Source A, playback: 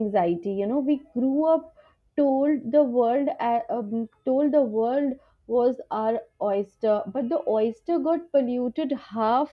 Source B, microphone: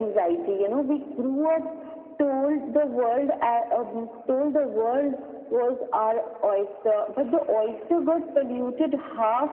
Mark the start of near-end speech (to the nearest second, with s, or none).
none